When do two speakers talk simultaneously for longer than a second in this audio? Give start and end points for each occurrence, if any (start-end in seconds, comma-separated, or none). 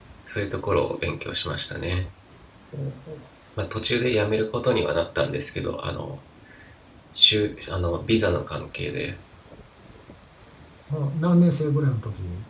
none